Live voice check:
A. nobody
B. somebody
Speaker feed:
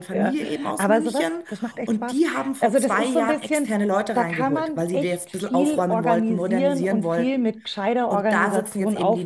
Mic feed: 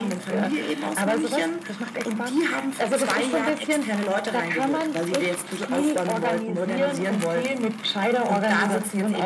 A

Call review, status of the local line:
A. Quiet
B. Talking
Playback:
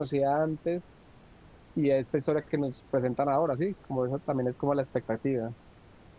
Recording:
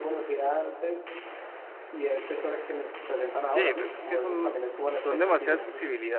B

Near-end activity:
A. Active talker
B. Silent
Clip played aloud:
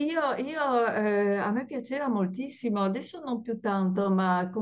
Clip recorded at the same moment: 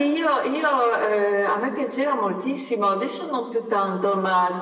B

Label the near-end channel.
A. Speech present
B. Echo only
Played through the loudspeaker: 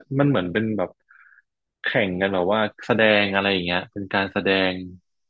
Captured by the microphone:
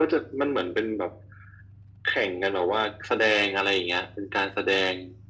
B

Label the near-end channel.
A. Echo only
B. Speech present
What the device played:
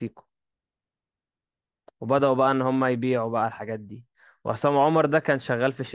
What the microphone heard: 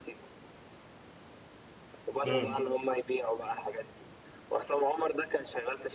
B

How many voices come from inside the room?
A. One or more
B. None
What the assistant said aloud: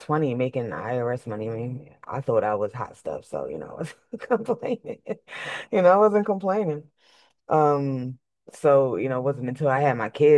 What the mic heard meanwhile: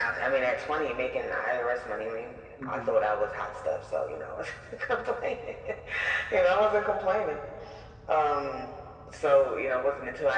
A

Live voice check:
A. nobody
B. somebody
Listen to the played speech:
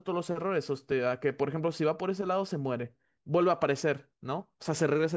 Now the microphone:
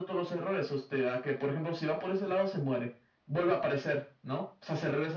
A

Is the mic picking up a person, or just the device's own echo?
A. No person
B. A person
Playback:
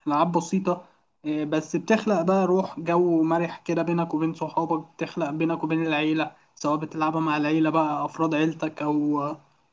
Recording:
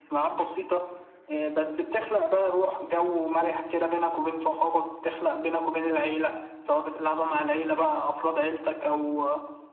A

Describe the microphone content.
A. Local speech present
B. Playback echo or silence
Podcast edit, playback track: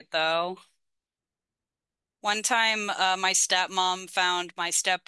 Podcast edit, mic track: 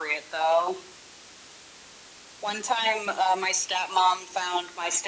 B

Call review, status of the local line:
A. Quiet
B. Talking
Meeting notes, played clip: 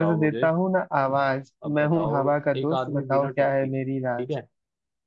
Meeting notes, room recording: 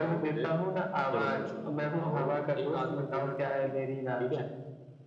B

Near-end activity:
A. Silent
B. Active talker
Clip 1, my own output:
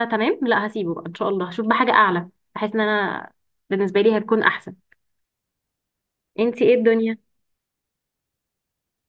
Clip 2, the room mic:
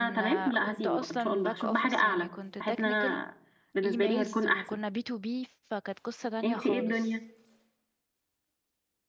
B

